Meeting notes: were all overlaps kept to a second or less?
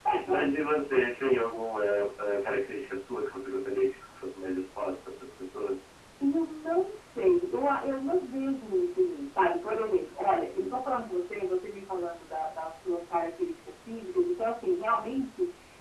Yes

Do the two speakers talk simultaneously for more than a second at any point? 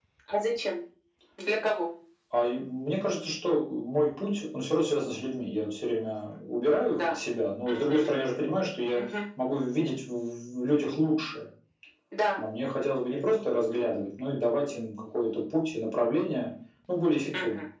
No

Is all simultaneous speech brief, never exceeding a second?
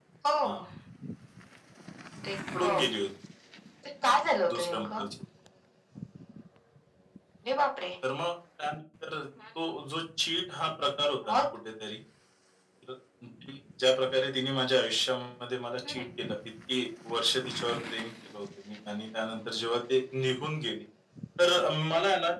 Yes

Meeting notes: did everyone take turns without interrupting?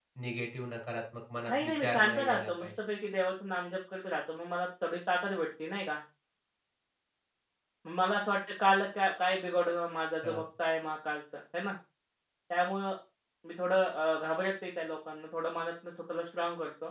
No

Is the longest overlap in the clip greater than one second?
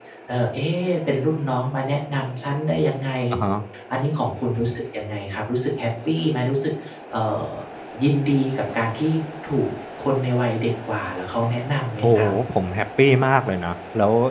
No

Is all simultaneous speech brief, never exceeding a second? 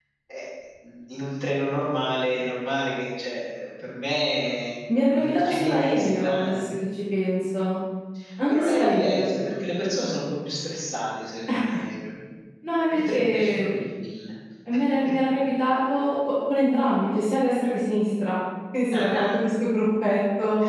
No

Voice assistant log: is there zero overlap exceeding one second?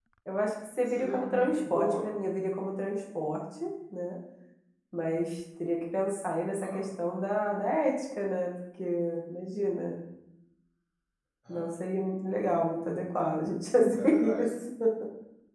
No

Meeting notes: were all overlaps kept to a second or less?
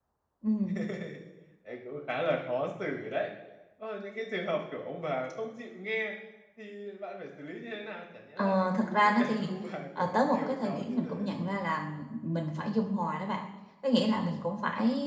No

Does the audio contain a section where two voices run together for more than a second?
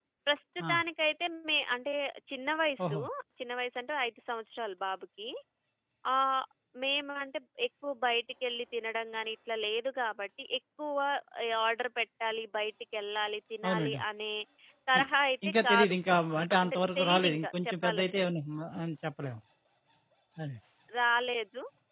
Yes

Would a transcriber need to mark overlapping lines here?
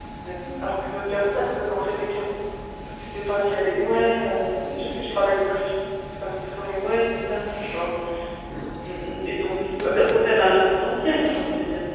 Yes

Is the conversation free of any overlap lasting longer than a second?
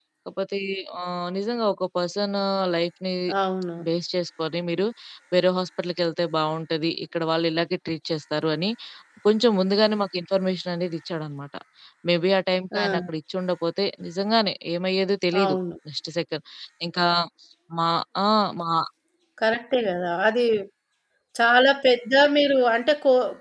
Yes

